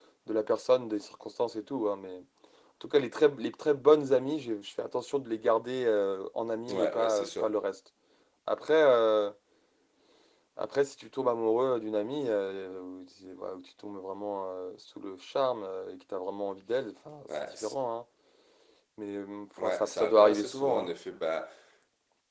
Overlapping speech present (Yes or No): Yes